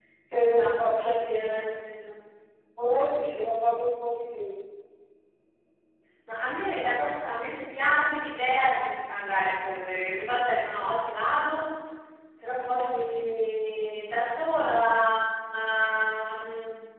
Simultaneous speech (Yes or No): Yes